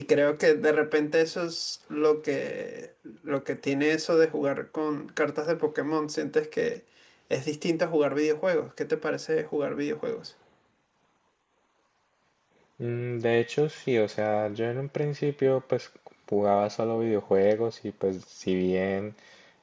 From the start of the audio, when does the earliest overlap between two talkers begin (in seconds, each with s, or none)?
none